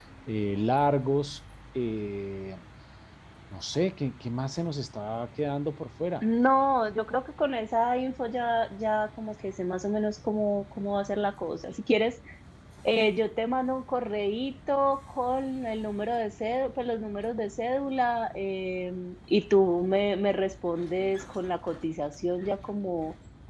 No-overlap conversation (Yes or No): Yes